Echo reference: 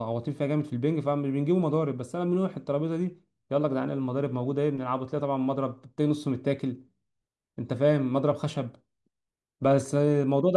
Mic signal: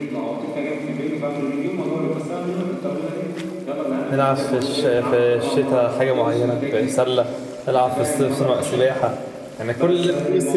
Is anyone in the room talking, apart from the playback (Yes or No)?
Yes